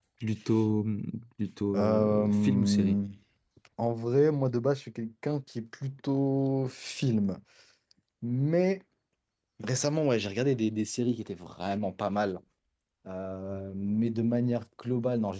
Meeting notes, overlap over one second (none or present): present